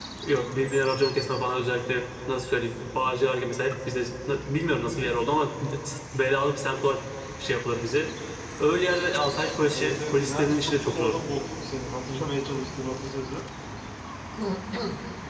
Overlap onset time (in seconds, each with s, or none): 9.7 s